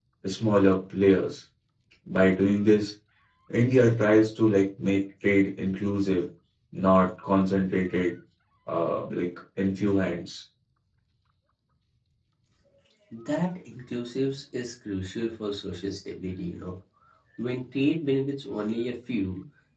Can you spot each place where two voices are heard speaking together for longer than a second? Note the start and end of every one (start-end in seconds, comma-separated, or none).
none